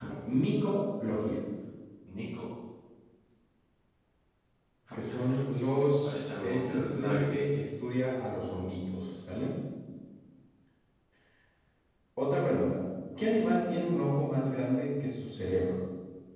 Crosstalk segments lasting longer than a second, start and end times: 6.0-7.3

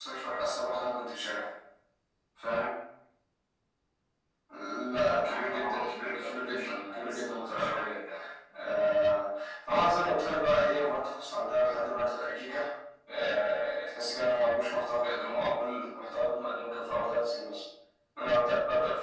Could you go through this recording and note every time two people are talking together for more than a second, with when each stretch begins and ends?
4.9-8.0

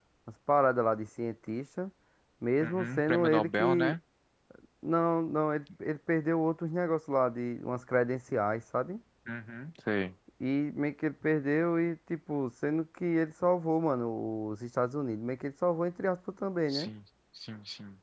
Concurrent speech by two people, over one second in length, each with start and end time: 2.6-3.9

